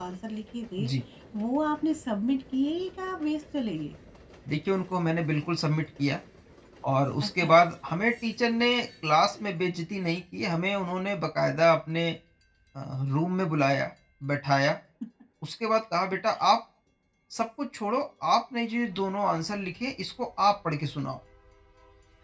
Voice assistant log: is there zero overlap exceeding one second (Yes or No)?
Yes